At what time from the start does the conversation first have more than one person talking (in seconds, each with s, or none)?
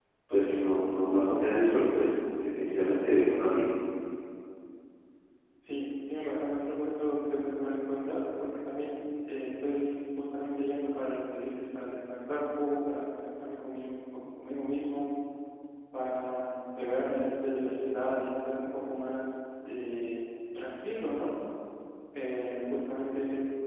none